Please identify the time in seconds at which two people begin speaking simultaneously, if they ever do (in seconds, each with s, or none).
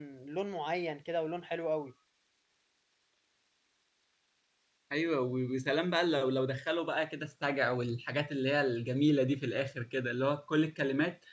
none